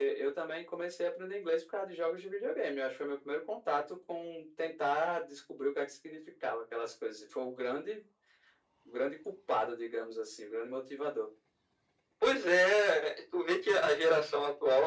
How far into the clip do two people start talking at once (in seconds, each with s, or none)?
none